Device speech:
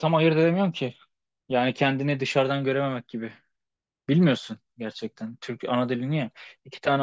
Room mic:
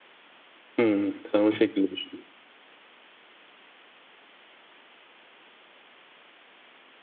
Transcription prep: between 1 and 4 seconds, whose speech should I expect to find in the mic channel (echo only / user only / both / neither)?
user only